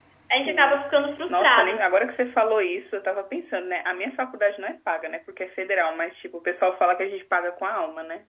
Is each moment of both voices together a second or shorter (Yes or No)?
Yes